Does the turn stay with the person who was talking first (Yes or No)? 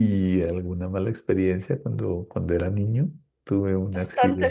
No